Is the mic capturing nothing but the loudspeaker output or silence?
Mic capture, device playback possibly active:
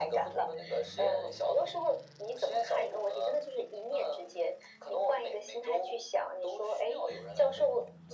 Yes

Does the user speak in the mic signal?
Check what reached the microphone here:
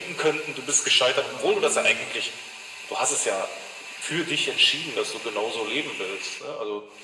Yes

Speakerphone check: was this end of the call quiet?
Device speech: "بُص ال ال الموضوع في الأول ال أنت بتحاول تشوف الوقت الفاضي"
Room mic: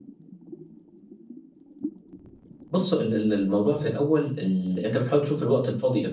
Yes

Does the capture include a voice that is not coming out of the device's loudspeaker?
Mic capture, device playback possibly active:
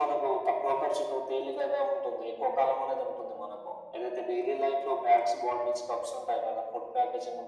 No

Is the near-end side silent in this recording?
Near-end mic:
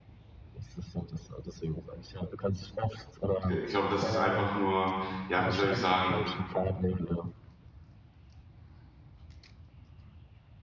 No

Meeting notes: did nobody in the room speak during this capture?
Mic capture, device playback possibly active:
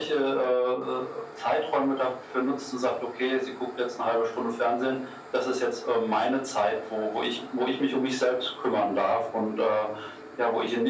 Yes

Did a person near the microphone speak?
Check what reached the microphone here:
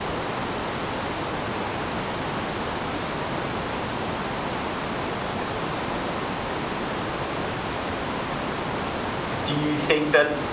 Yes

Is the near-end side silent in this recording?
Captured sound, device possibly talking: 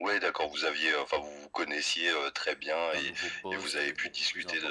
No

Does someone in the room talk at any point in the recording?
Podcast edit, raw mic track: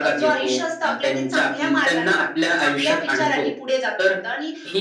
No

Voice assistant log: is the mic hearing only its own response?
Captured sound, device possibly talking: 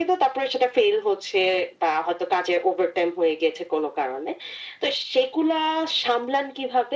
Yes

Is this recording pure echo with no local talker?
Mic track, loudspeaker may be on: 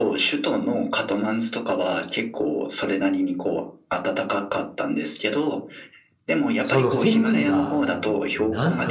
No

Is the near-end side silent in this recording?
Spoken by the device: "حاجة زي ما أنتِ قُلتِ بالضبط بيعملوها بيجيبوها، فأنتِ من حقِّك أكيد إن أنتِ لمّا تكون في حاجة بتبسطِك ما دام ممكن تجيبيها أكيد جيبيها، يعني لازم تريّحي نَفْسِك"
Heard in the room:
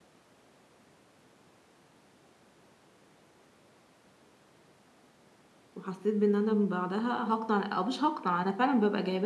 No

